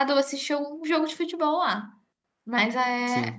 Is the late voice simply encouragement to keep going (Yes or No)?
Yes